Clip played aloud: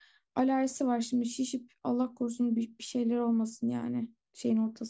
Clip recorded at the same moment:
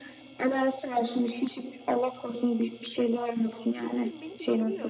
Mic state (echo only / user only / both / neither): both